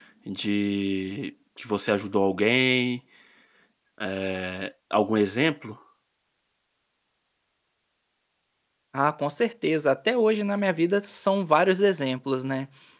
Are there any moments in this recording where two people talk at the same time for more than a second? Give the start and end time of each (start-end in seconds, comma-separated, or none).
none